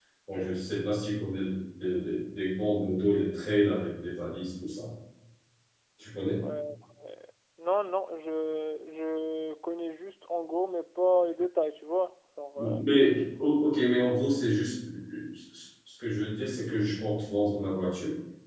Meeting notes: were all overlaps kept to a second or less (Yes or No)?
Yes